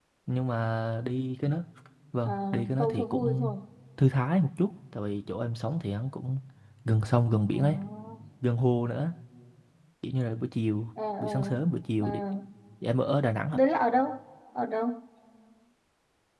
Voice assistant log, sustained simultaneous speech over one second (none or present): present